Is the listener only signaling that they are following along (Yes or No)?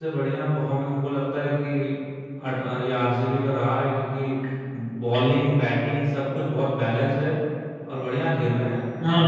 No